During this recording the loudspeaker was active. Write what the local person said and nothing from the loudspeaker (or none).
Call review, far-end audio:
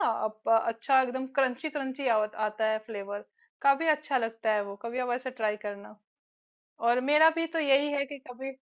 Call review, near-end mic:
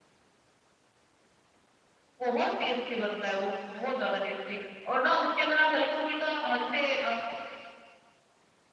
बहुत टेस्टी बनता है वो बहुत ज्यादा टेस्टी और ना उसके अंदर आप हल्का फुल्का अ, जैसे अ,